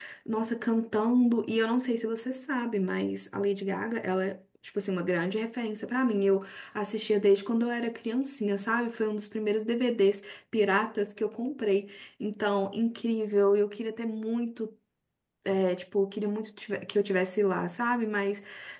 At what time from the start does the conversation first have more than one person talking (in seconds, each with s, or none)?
none